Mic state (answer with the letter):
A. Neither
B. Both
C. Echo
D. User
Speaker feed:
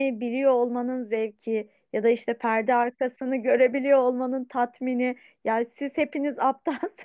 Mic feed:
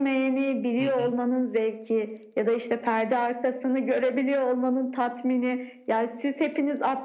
B